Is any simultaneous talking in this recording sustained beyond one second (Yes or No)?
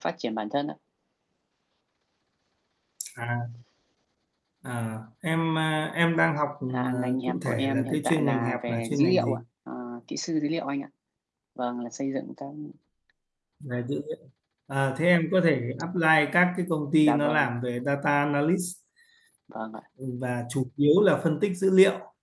Yes